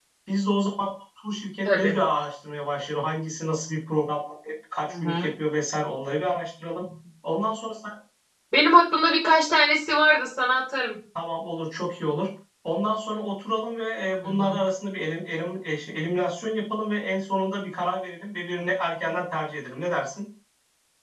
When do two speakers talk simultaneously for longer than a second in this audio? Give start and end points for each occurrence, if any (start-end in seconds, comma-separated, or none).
none